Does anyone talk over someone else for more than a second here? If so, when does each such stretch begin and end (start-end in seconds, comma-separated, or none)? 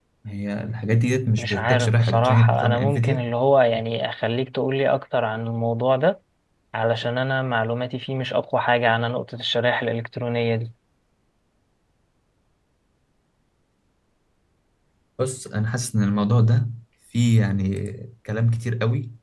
1.4-3.3